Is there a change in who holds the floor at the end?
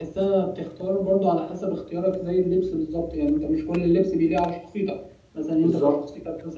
No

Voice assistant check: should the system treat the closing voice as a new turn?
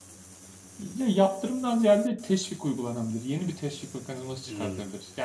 No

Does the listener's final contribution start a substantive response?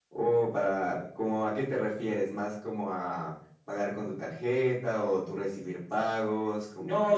Yes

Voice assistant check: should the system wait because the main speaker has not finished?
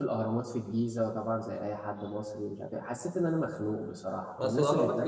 No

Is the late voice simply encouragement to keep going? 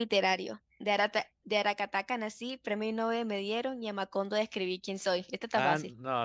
No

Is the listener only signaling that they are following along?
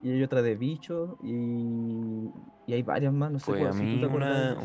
No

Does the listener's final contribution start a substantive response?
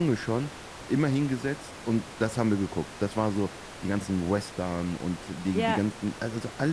No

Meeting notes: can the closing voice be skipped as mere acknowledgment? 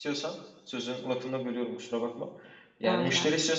Yes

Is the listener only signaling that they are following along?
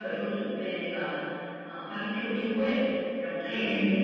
Yes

